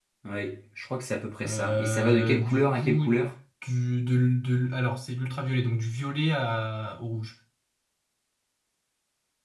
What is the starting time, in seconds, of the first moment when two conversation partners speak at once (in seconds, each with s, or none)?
1.4 s